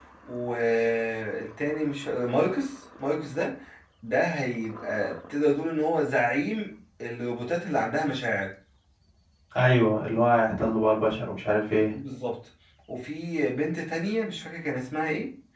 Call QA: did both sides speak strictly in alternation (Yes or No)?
Yes